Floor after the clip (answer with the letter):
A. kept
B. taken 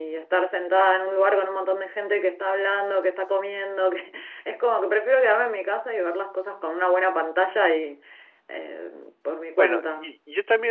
B